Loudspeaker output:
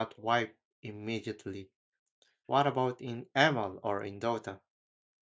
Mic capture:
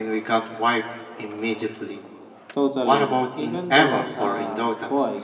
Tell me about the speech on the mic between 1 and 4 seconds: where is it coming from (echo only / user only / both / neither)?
both